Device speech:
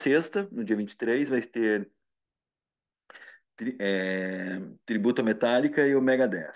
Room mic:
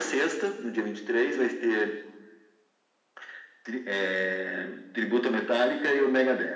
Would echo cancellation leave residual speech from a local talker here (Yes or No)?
No